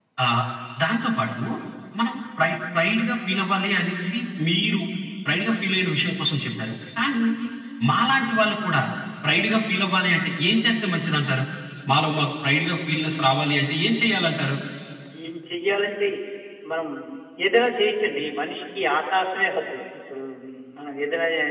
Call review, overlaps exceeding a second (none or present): none